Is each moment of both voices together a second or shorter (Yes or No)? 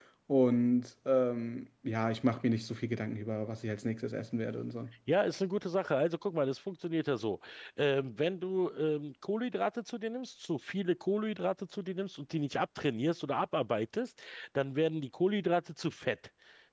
Yes